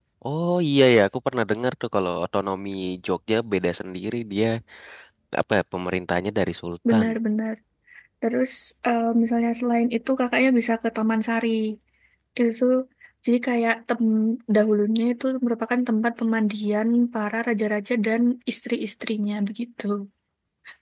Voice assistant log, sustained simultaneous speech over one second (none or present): none